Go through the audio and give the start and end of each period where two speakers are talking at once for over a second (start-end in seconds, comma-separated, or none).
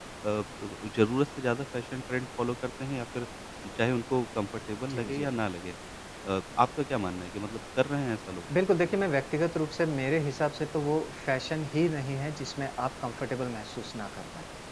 none